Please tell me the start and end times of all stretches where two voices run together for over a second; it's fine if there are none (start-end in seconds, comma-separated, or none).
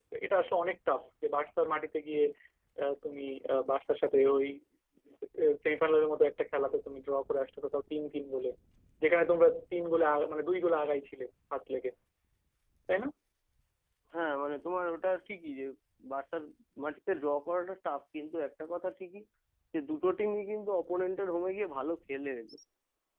none